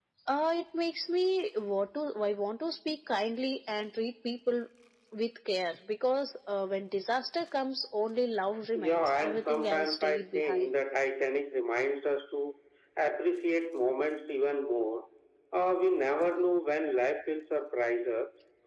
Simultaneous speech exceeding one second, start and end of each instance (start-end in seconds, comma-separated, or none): 8.7-10.7